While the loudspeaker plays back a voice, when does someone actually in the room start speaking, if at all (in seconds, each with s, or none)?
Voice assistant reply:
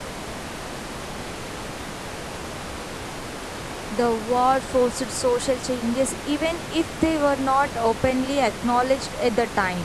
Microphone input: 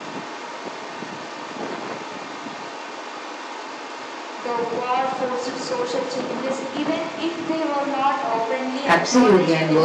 8.8 s